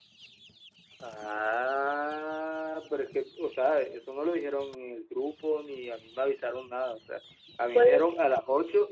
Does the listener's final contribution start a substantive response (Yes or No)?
No